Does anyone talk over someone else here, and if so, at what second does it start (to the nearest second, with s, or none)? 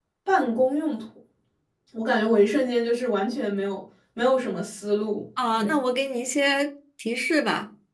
none